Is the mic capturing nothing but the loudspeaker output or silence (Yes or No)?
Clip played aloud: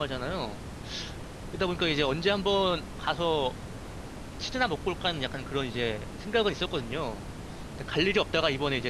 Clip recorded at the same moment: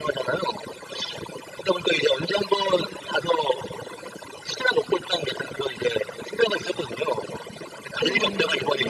No